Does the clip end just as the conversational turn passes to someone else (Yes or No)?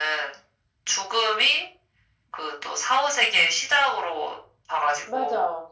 No